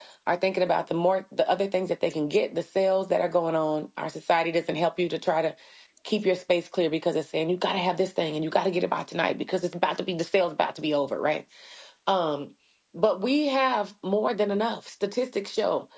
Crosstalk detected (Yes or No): No